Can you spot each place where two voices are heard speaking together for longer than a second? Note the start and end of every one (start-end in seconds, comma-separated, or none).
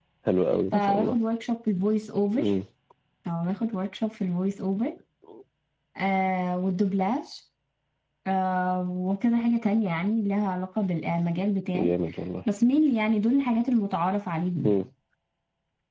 none